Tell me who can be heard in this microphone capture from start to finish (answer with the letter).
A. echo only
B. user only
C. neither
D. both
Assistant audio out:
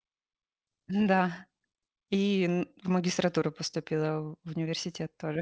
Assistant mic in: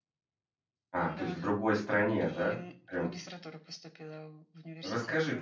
D